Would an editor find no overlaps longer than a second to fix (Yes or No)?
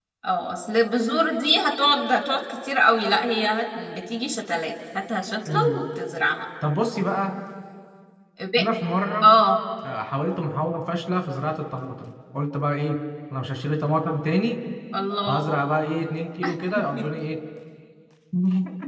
Yes